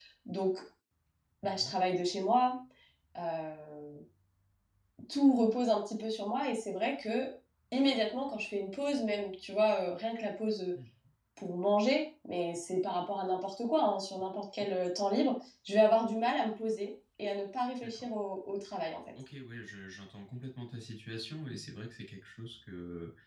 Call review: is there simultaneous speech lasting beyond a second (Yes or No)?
No